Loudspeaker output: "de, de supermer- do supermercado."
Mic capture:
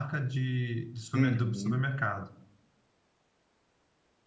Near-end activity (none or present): present